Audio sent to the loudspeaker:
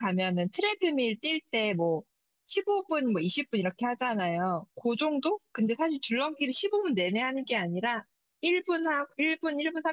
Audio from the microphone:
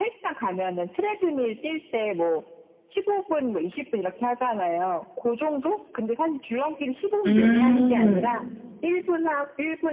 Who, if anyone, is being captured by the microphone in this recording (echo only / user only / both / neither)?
both